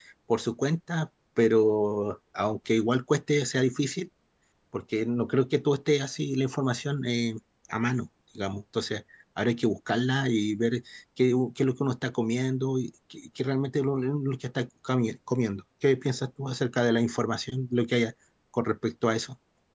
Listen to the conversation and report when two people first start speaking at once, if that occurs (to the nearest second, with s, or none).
none